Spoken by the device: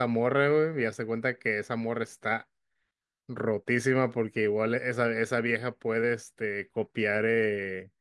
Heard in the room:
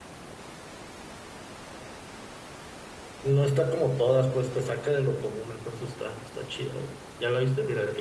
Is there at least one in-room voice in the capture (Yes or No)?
Yes